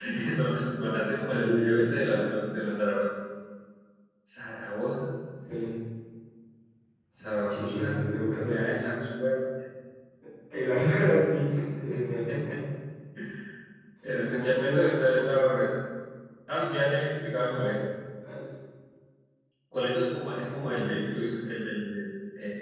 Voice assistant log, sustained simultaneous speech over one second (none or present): present